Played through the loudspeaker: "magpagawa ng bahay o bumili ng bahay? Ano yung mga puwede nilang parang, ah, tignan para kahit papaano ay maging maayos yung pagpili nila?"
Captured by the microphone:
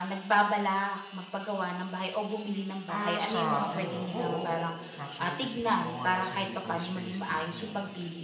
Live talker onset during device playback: 2.9 s

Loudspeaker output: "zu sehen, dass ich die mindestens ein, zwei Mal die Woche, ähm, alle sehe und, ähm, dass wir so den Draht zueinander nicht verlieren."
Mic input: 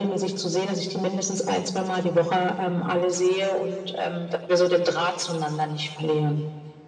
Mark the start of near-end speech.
none

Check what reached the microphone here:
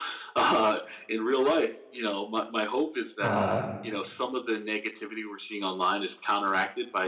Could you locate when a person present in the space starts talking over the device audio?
3.2 s

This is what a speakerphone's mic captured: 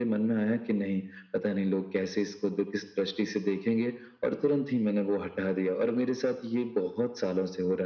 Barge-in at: none

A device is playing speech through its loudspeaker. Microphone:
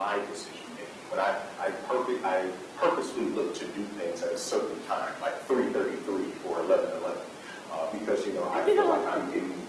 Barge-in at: 8.6 s

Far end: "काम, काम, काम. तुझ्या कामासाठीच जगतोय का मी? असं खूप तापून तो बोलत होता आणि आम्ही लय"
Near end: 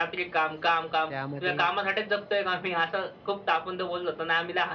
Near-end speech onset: 0.9 s

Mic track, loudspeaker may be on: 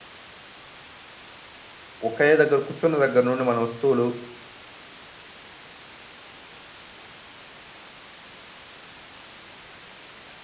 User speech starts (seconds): 2.1 s

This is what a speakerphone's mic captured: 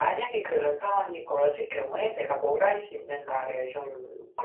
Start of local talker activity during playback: none

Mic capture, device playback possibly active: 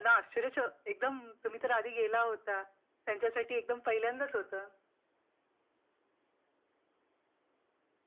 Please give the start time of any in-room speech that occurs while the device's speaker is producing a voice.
none

